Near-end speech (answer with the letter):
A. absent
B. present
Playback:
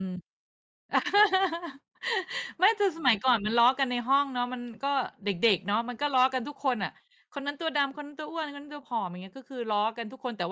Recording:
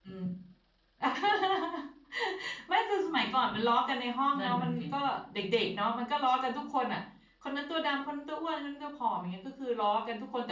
B